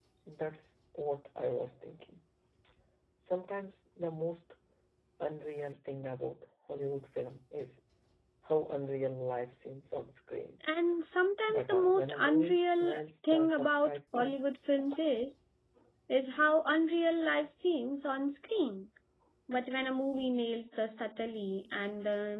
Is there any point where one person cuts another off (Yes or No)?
Yes